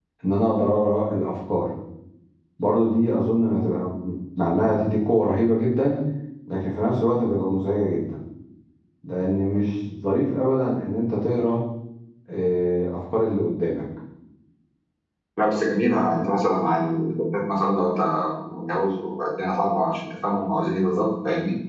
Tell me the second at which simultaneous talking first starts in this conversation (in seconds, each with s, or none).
none